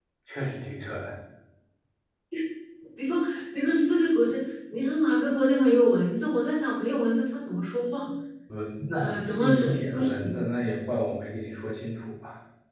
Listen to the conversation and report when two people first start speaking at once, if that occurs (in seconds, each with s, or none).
8.9 s